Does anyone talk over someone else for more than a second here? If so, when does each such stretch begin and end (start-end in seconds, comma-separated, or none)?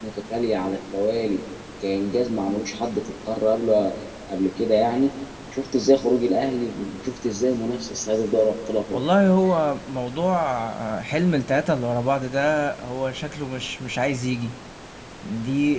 none